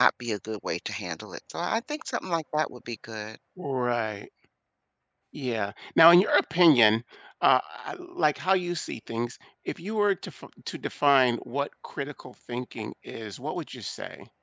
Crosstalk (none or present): none